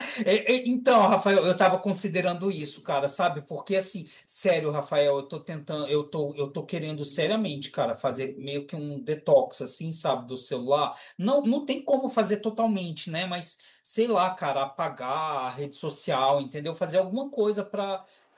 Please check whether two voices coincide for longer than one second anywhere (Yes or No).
No